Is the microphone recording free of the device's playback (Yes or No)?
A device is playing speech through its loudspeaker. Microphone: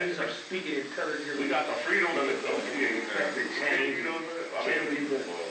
No